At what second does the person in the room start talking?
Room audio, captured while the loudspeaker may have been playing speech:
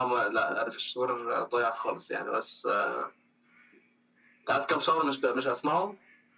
none

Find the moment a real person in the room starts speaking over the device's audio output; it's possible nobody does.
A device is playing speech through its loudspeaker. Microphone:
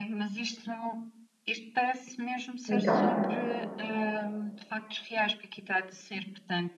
2.7 s

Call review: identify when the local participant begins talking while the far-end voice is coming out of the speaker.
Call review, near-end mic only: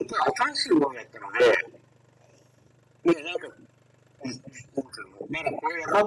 none

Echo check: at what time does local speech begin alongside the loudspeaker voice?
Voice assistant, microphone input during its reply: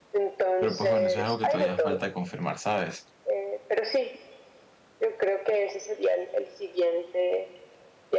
0.6 s

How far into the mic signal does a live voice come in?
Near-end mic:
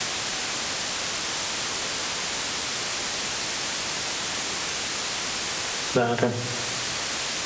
5.9 s

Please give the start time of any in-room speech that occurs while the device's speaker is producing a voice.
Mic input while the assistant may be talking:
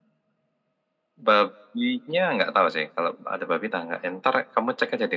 none

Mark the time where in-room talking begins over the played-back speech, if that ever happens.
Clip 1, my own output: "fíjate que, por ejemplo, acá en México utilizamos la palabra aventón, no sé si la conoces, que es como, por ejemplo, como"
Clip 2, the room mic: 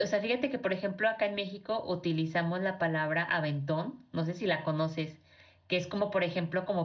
none

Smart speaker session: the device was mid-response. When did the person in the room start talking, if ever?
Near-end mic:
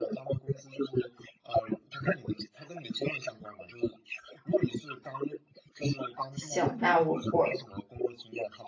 6.3 s

